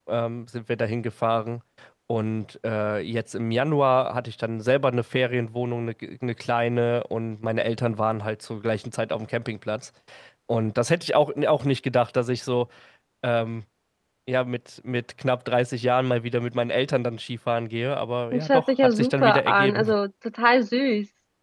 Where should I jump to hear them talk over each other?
18 s

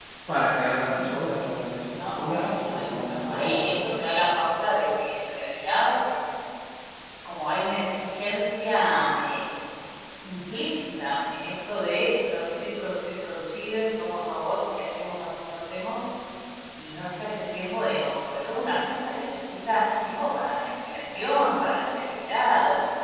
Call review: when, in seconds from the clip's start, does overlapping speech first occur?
2 s

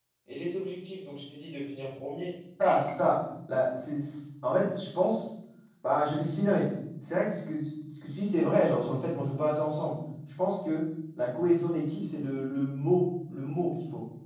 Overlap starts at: none

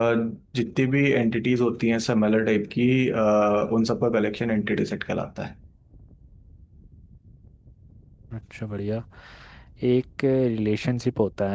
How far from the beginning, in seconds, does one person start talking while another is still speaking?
none

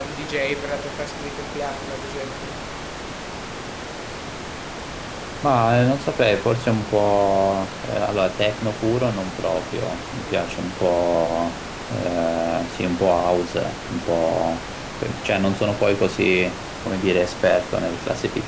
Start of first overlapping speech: none

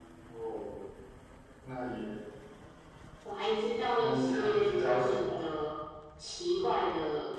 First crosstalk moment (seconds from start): 4 s

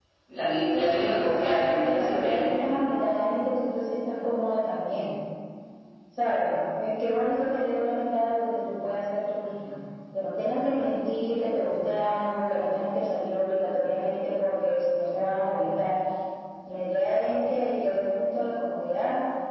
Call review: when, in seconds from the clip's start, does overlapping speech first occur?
1 s

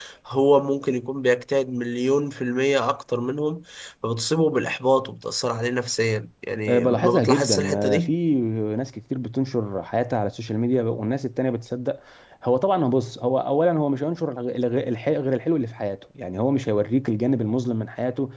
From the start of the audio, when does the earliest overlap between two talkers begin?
7 s

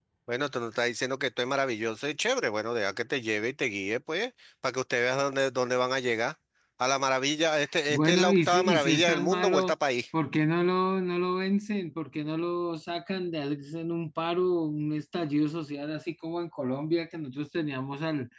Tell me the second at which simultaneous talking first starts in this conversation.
8 s

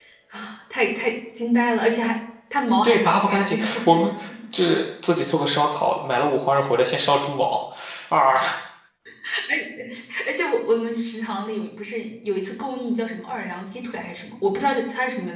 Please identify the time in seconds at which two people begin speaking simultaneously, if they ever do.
3 s

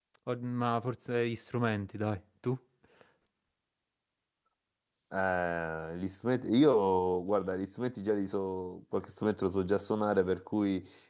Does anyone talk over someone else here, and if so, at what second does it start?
none

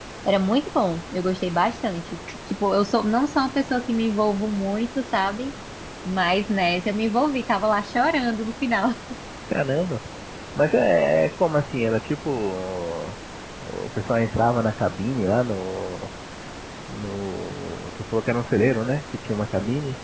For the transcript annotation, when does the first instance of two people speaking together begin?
none

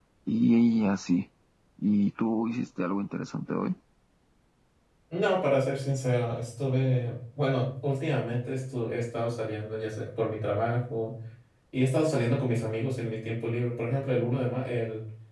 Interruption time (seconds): none

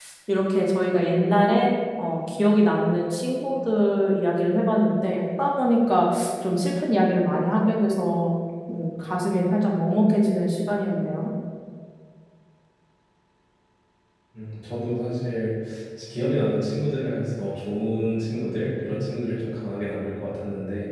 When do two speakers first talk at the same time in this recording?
none

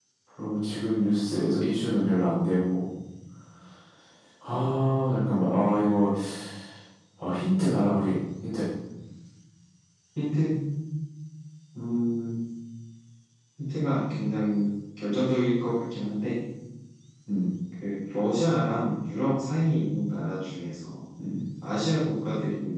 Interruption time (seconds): none

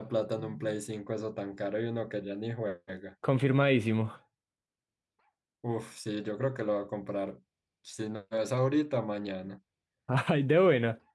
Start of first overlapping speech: none

